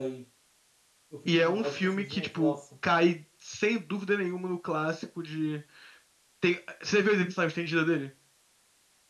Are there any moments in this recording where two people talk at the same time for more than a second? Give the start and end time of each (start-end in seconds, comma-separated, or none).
1.3-2.6